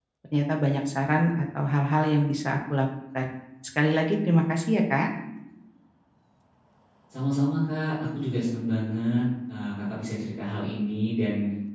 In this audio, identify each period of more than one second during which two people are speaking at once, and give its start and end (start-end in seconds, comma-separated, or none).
none